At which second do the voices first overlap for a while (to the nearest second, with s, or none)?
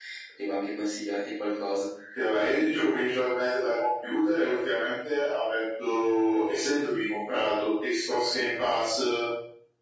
none